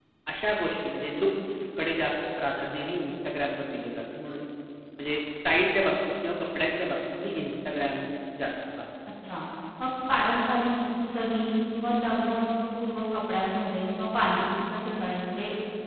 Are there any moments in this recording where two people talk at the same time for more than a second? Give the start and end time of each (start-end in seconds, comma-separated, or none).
none